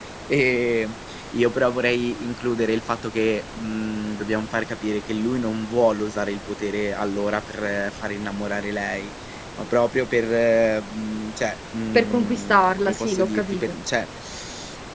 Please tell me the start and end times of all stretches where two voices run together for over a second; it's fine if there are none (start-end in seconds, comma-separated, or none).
11.9-13.7